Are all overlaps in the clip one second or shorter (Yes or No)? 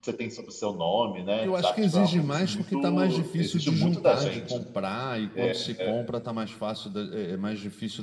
No